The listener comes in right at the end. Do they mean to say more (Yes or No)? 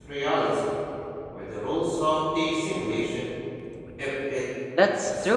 Yes